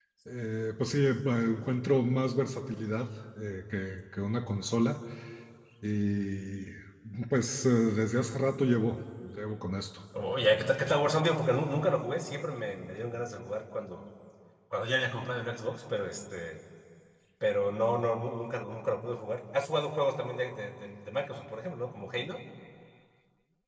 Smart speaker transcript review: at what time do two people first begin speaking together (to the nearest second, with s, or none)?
none